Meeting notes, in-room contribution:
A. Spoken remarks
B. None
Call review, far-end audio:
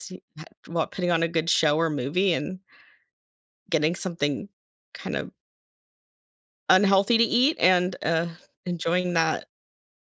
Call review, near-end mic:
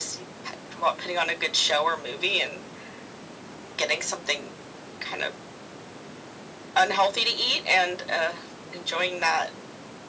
B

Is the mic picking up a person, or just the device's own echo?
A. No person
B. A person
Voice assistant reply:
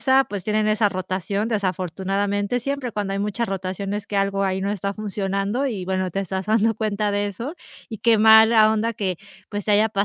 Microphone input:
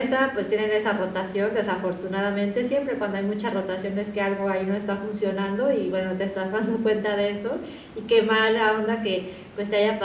A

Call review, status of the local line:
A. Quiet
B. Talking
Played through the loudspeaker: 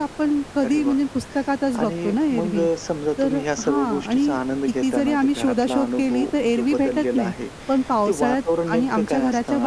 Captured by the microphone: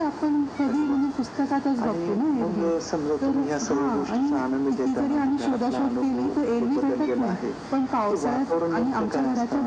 A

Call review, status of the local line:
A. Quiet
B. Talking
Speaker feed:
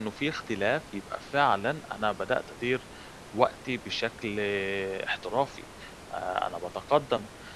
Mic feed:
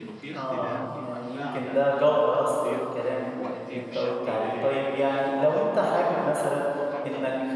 B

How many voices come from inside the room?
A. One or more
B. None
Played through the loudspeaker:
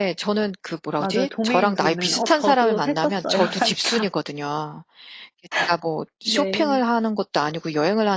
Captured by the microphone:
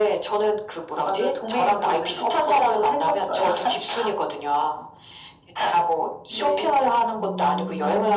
A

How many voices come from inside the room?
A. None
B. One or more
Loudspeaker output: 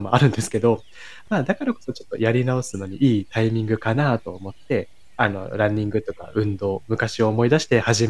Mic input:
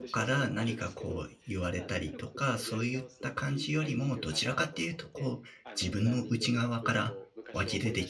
B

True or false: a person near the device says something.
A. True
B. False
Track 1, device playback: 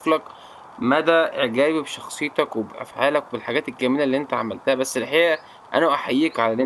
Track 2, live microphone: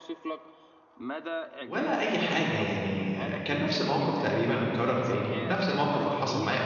A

